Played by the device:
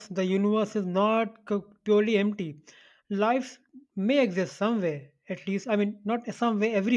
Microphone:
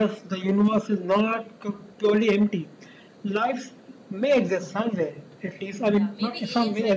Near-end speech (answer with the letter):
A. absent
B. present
B